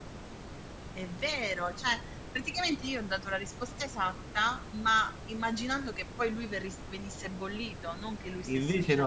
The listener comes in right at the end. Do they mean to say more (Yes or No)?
Yes